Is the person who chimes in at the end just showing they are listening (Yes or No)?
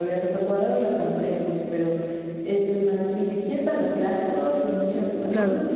Yes